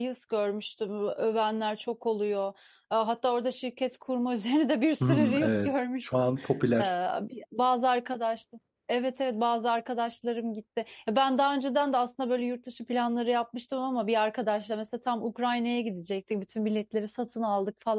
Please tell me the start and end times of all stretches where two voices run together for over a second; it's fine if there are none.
5.1-6.3

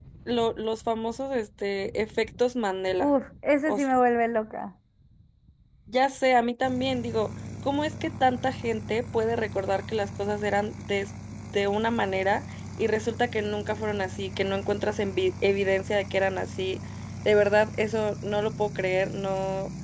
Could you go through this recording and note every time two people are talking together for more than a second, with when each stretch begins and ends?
none

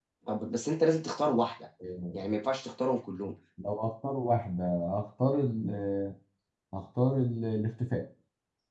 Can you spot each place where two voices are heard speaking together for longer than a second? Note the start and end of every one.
none

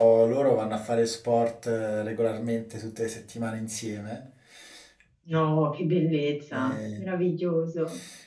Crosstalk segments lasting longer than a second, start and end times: none

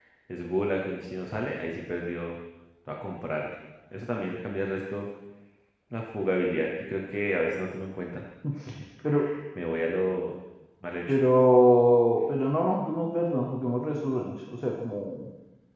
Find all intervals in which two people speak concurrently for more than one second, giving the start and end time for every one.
none

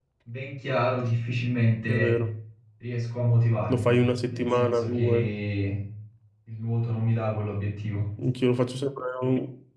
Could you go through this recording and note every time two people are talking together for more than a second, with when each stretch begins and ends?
3.7-5.3

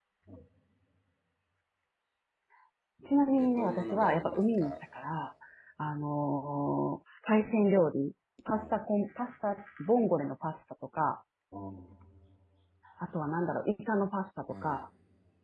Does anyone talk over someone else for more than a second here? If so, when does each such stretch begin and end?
3.4-4.7

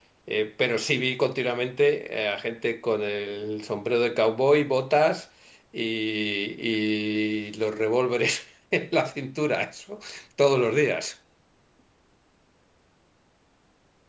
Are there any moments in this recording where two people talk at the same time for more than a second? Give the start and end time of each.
none

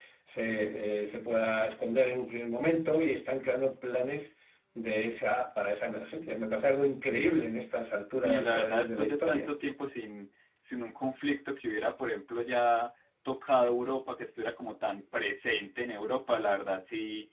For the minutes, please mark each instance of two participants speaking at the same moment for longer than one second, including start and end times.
8.2-9.5

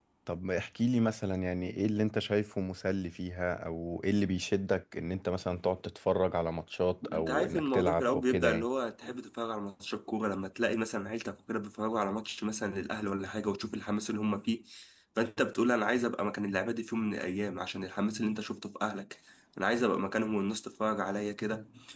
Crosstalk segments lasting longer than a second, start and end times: 7.1-8.7

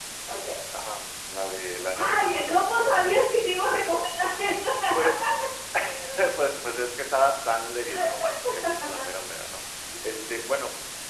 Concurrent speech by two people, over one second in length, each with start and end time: 1.9-3.1

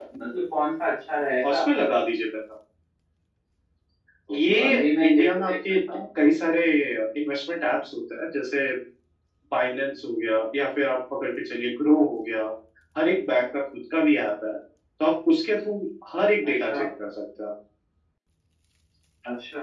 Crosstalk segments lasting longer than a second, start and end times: 4.3-5.5

